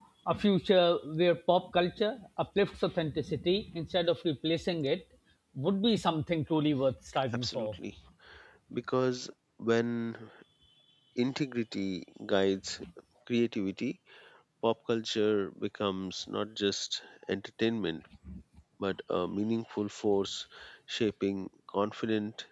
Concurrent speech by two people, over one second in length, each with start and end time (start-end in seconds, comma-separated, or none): none